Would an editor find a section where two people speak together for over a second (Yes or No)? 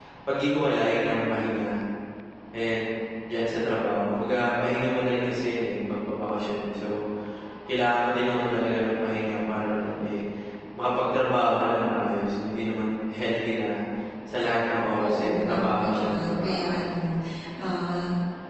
Yes